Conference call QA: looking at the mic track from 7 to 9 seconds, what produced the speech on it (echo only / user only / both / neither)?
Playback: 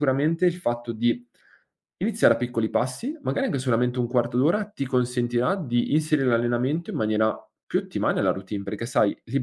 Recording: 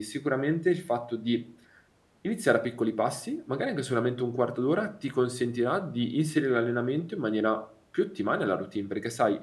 echo only